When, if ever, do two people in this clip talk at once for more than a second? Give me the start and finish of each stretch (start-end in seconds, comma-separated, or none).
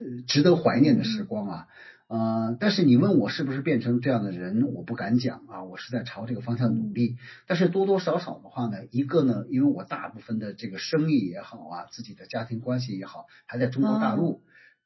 none